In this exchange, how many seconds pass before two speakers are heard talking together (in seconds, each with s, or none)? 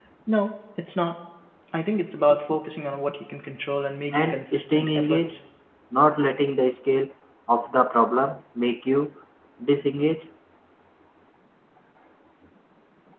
4.1 s